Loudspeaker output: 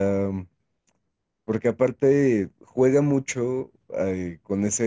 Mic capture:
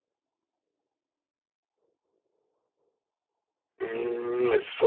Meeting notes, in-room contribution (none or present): present